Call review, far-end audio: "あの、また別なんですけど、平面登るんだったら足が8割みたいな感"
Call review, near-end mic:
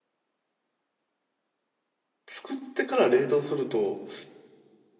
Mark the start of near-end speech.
2.3 s

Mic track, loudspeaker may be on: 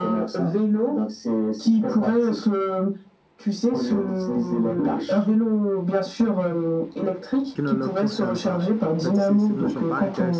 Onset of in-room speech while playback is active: 7.5 s

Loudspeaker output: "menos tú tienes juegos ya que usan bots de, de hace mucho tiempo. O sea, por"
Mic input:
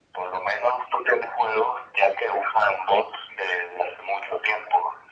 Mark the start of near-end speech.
none

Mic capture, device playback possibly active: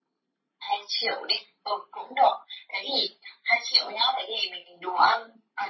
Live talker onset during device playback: none

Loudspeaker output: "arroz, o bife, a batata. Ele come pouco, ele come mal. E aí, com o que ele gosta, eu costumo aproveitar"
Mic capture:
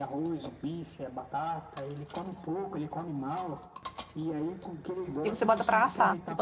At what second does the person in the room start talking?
5.2 s

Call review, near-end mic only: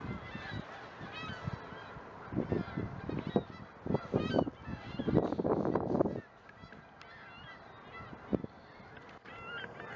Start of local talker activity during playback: none

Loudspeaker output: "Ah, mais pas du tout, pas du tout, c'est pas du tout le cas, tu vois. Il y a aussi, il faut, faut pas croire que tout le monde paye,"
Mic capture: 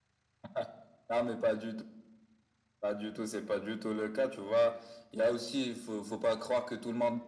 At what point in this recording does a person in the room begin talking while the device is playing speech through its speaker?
none

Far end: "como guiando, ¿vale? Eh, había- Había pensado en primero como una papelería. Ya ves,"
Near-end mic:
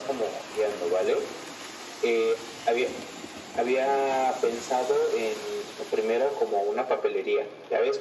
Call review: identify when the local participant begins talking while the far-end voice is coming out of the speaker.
none

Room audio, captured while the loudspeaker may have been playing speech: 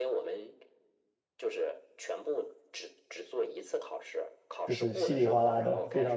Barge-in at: 4.7 s

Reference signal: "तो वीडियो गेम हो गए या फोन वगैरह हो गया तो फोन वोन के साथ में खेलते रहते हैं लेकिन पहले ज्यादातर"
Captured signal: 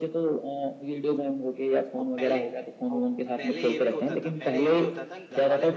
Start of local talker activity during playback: 2.0 s

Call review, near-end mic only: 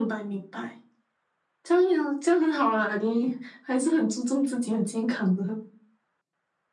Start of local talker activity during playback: none

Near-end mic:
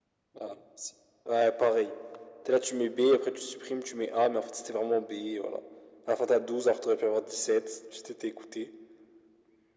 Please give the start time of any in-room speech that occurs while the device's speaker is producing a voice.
none

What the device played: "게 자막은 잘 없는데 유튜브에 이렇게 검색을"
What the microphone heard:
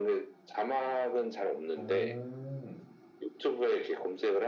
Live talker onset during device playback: 1.8 s

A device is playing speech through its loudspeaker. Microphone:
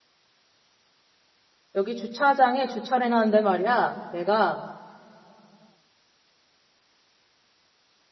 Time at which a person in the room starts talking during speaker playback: 1.7 s

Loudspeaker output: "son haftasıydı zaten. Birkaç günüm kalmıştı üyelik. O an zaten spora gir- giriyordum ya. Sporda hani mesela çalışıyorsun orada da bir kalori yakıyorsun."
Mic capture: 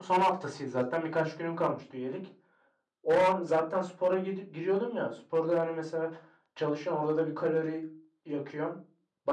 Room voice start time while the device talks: none

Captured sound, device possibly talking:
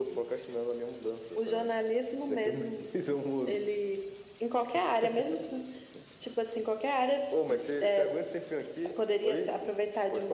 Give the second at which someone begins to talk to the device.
none

